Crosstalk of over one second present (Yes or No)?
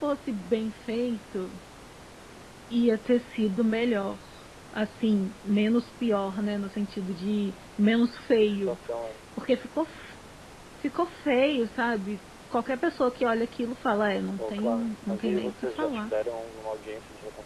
Yes